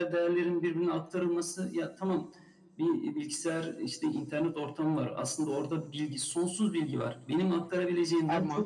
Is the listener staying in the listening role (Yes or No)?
Yes